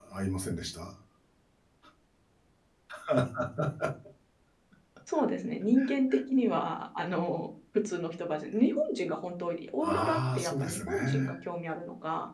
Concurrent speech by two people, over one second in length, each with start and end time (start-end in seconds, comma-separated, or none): 9.8-11.3